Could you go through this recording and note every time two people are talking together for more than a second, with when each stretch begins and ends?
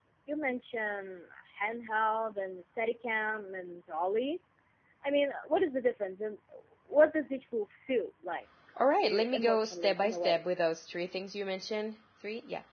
9.0-10.4

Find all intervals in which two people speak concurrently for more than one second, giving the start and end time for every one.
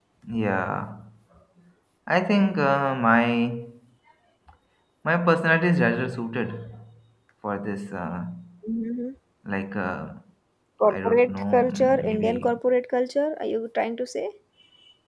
10.9-12.6

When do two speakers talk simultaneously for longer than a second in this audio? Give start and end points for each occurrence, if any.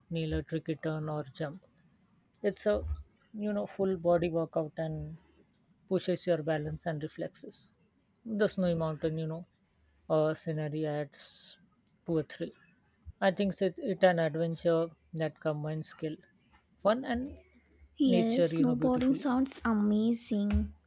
18.0-19.2

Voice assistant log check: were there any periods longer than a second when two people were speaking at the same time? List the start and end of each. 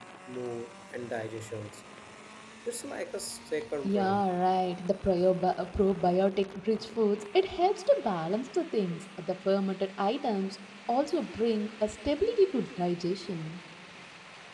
none

